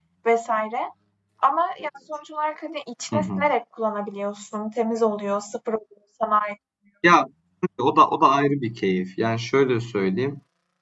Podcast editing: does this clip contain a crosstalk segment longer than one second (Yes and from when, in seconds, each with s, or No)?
No